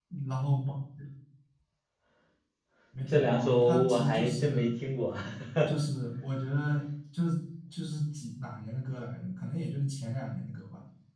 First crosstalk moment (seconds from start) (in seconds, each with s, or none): 3.1 s